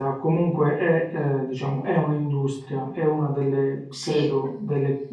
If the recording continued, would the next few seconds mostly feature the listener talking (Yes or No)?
No